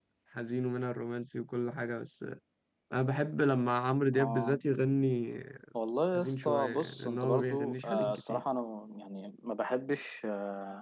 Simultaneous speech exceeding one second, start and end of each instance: 6.1-8.4

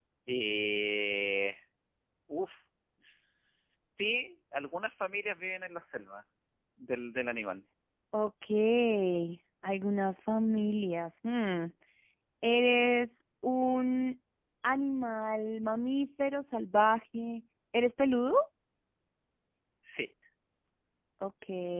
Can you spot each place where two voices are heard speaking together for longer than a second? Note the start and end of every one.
none

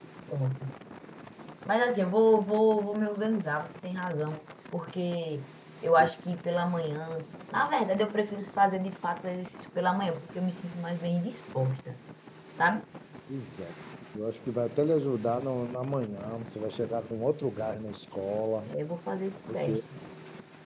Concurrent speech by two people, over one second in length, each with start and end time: none

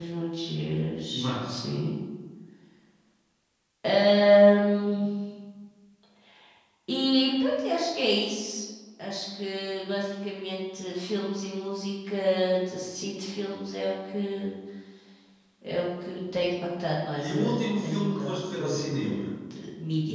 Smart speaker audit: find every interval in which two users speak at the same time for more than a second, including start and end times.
17.2-19.3

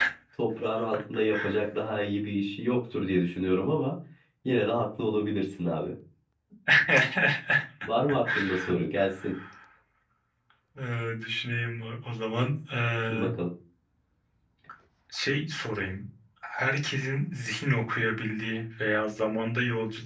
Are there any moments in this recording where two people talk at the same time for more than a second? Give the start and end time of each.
none

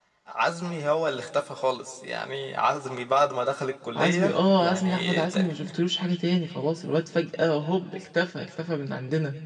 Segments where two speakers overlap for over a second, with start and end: 4.0-5.5

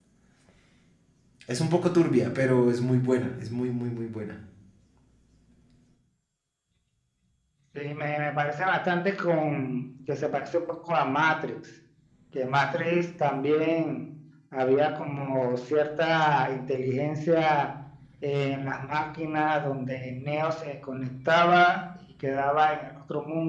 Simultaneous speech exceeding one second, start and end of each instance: none

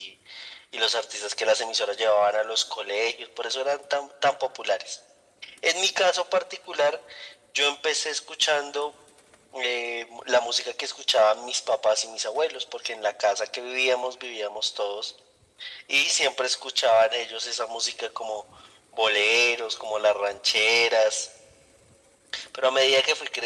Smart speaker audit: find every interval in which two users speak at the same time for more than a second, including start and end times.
none

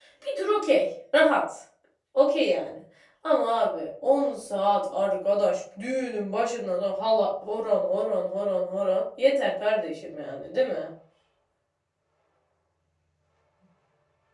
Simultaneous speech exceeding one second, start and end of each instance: none

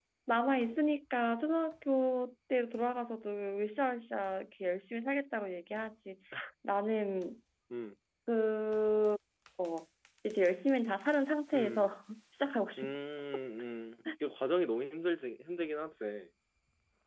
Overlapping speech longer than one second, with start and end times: none

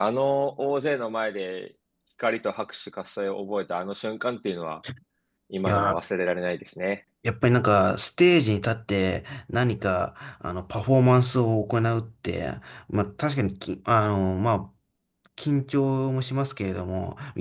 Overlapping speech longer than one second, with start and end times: none

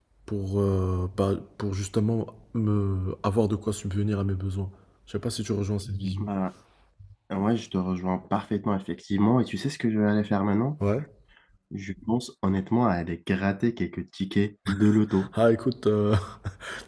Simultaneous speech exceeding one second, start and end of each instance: none

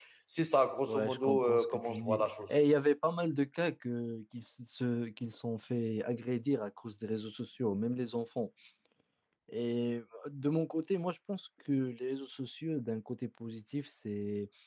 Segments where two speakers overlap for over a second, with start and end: 0.9-2.5

